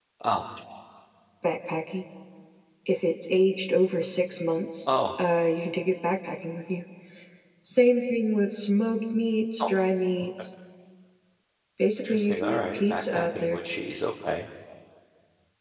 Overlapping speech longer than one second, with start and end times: 12.1-13.6

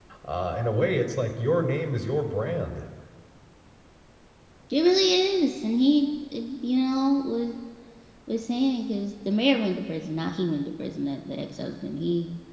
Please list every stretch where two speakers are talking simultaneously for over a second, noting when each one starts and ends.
none

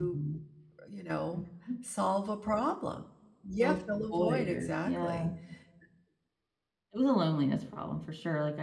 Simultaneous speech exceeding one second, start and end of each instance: 3.6-5.2

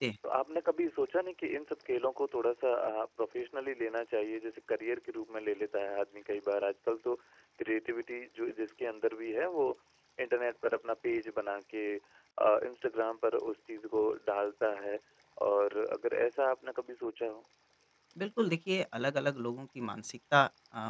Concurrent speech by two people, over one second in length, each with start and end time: none

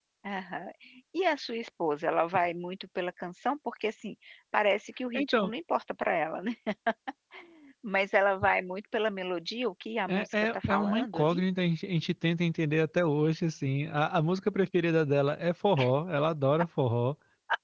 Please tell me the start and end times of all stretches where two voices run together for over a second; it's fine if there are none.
10.1-11.4

